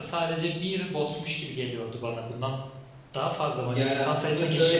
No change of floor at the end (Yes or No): No